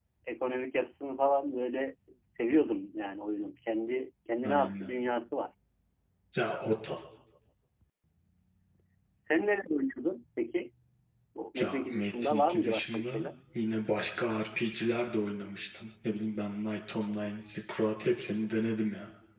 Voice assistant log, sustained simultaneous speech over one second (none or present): present